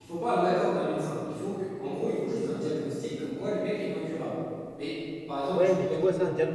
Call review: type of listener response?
taking over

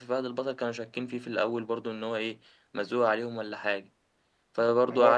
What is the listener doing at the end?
taking over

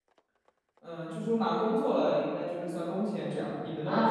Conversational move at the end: taking over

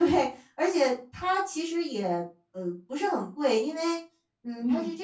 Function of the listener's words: listening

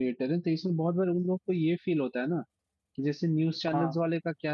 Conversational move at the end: listening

